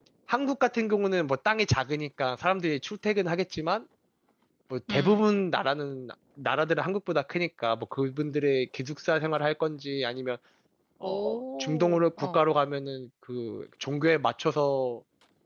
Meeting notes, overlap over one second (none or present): present